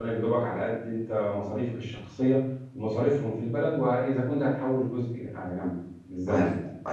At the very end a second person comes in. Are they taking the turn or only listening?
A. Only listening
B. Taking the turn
B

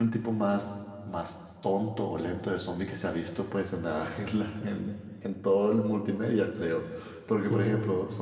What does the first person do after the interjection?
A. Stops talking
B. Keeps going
B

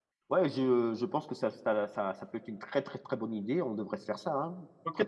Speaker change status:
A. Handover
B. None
A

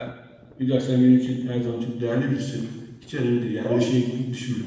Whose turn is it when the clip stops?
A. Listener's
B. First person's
B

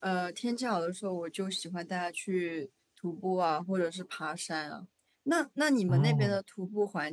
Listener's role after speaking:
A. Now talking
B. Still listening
B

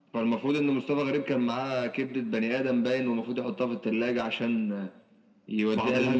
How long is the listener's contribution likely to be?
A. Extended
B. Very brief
B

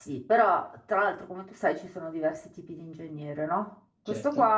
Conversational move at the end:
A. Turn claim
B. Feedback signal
B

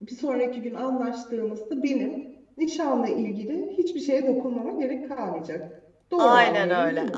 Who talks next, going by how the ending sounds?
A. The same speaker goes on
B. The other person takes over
B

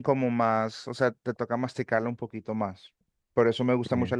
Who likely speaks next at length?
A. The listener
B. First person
B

